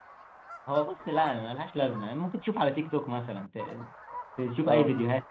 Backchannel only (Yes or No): Yes